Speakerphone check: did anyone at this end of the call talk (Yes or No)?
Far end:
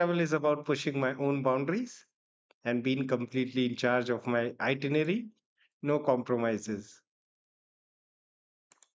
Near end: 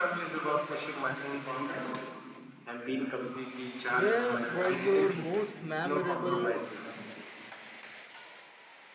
Yes